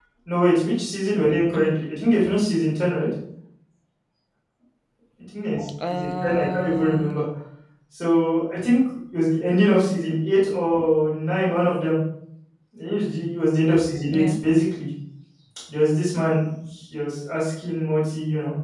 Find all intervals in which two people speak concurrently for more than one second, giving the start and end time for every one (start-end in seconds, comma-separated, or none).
5.9-7.2